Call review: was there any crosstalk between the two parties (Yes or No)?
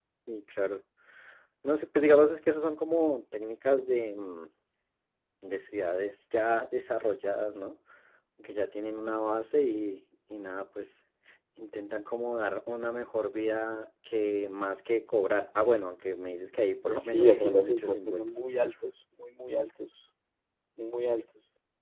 Yes